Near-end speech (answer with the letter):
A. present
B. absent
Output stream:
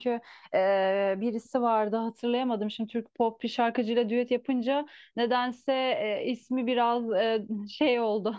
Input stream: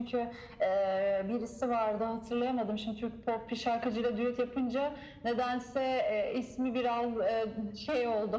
B